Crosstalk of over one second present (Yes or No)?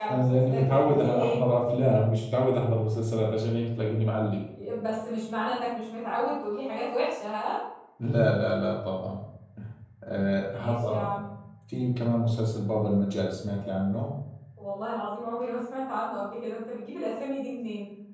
Yes